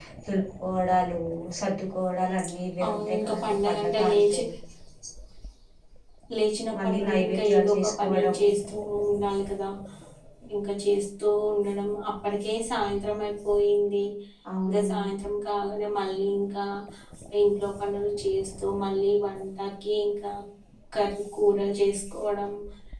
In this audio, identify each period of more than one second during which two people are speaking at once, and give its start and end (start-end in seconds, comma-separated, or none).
2.9-4.4, 6.8-8.4